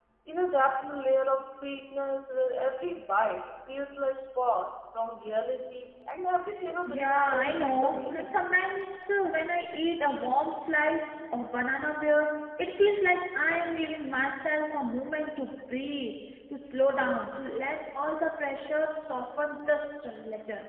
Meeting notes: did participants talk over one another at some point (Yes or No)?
Yes